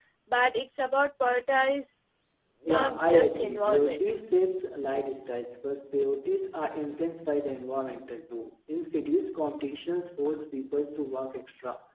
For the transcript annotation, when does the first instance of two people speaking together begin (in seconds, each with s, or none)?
2.7 s